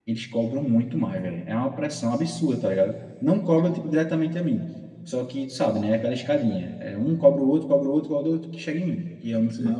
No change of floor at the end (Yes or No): No